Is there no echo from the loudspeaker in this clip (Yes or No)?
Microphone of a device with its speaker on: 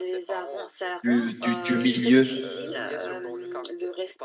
No